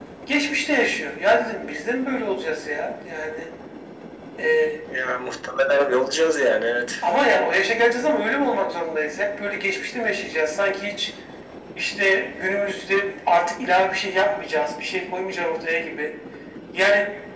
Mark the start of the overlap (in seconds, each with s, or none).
none